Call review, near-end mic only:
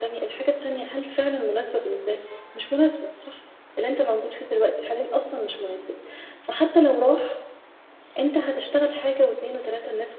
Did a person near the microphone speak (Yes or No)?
No